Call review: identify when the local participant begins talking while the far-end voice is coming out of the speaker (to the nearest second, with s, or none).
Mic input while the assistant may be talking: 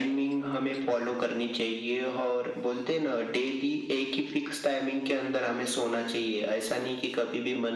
none